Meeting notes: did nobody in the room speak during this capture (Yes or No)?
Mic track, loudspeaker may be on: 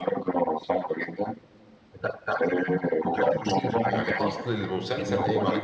No